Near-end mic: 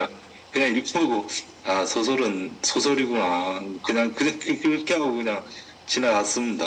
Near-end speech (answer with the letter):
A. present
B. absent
B